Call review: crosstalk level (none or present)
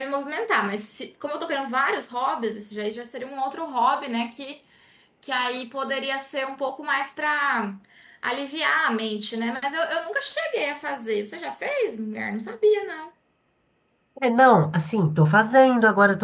none